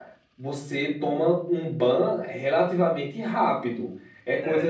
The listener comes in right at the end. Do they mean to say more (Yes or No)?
No